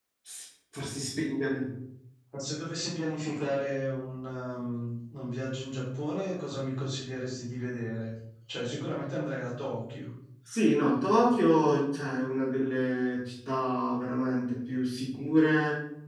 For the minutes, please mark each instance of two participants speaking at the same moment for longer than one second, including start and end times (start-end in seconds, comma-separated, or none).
none